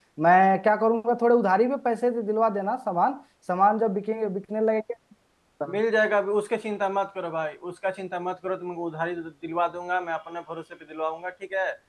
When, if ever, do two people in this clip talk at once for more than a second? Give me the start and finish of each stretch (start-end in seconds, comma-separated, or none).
none